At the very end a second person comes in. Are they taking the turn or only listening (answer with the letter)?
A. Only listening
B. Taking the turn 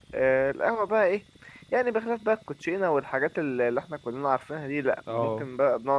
A